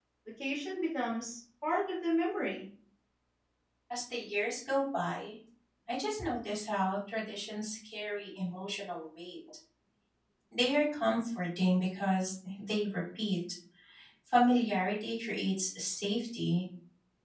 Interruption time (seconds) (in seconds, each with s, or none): none